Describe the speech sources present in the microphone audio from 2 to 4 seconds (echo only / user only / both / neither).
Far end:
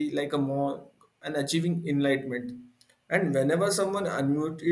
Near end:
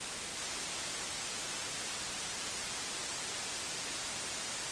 neither